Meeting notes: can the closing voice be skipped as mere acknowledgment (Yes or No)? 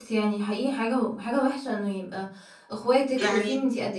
Yes